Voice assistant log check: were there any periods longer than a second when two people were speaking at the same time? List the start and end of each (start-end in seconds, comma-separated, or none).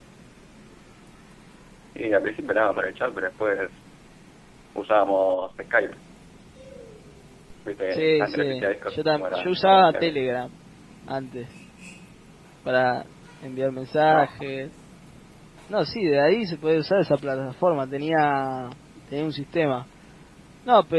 7.9-10.2